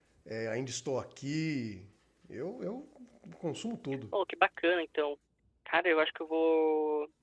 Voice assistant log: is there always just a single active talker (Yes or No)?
Yes